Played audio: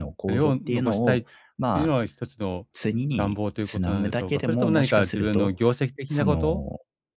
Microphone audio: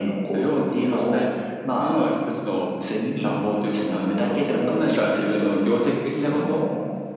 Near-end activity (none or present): none